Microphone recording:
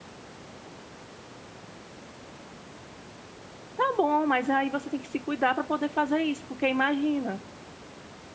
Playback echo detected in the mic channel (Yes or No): No